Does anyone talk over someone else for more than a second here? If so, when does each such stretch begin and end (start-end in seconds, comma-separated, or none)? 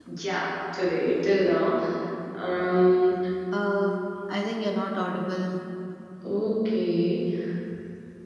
none